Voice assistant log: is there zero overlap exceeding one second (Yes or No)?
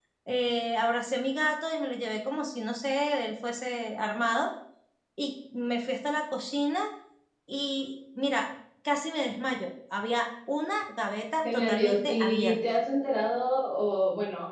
No